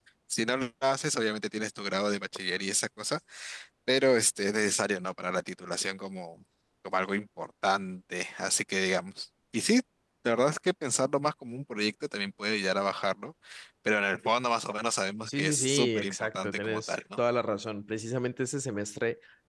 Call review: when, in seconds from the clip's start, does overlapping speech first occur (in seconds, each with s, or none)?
15.3 s